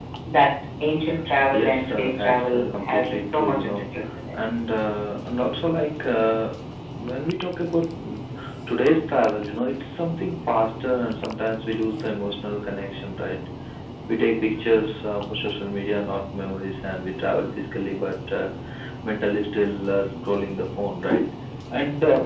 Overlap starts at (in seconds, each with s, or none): 1.5 s